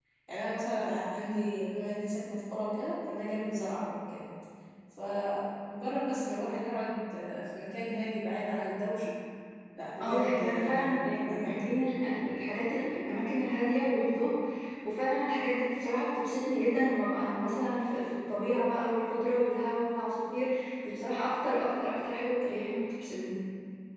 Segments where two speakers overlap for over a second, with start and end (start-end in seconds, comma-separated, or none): 10.0-11.6